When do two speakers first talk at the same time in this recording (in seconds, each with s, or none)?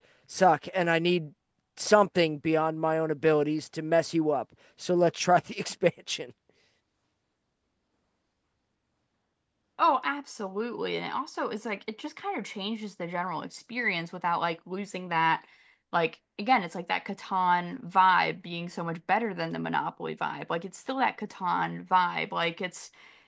none